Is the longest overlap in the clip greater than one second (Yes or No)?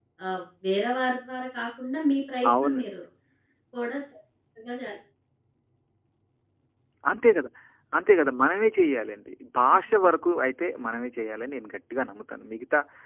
No